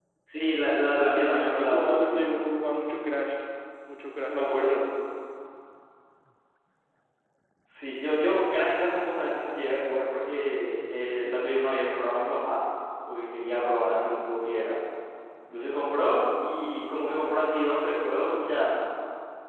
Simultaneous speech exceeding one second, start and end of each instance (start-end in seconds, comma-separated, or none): 1.1-2.4